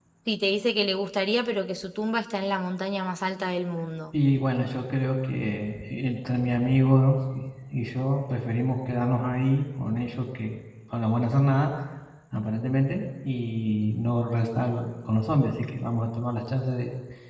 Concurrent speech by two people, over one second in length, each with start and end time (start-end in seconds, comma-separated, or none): none